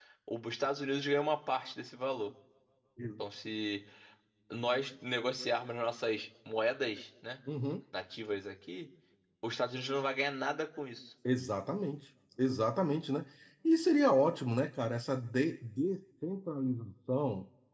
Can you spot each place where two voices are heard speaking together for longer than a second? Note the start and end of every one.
none

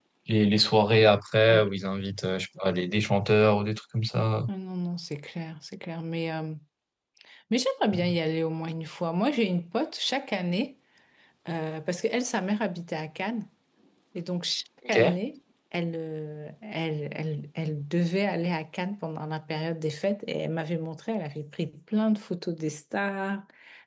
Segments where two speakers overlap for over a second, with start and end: none

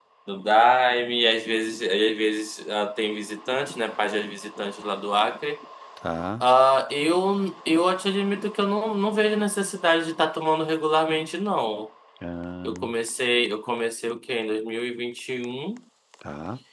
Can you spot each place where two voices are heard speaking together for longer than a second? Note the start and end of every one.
none

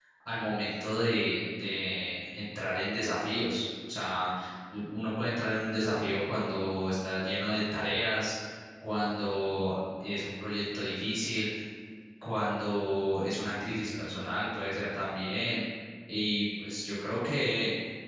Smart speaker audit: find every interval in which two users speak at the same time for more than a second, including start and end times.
none

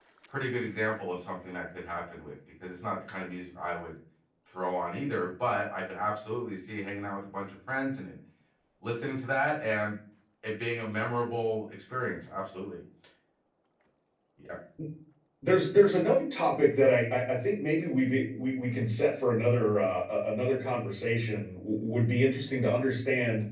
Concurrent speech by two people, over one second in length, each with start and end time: none

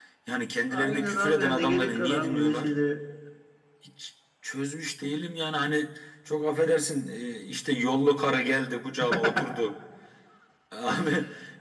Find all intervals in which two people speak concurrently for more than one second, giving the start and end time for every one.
0.7-2.7

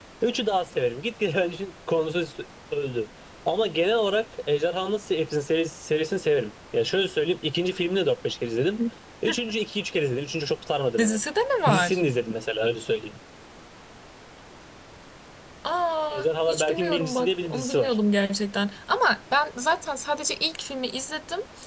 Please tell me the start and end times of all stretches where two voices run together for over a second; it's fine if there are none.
16.1-18.0

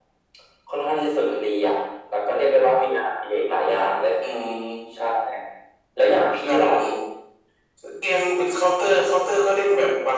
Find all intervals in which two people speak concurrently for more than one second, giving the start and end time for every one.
none

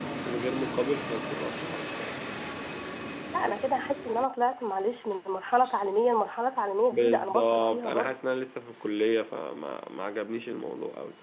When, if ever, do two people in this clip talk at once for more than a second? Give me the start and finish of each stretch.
6.9-8.2

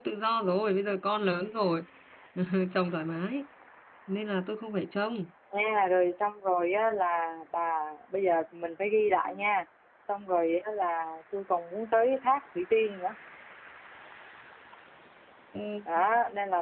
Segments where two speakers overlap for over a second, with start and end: none

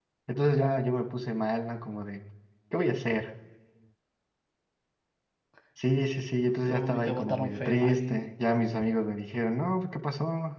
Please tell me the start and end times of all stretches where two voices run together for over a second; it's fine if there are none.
6.7-8.2

